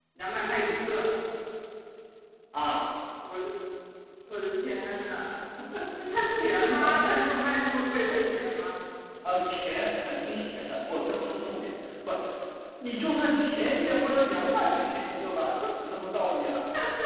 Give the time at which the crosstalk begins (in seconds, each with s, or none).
none